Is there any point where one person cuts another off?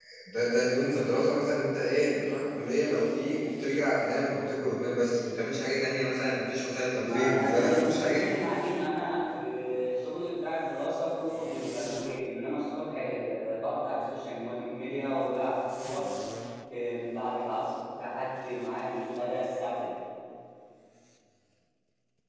Yes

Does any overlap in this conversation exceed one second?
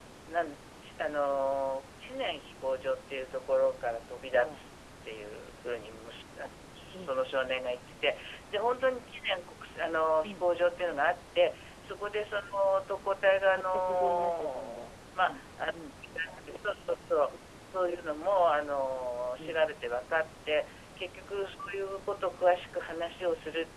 Yes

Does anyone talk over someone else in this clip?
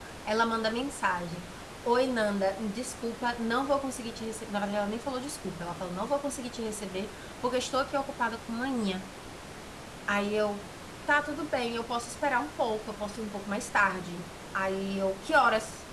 No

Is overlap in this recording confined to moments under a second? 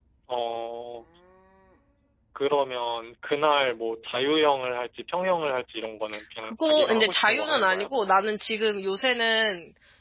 No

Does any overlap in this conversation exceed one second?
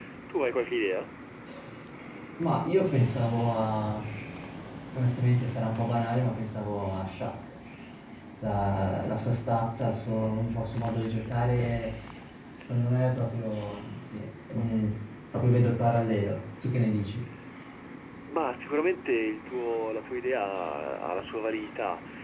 No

